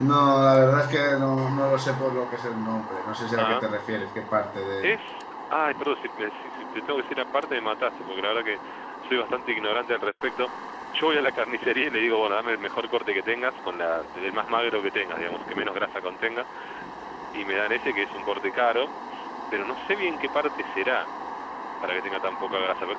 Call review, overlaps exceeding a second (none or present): none